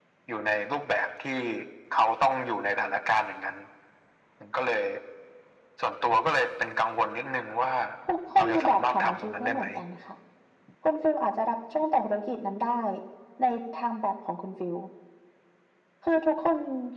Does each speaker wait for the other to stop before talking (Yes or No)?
No